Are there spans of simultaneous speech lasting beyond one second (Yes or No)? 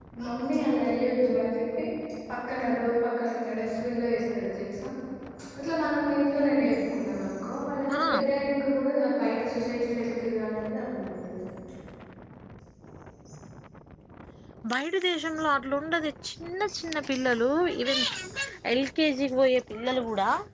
No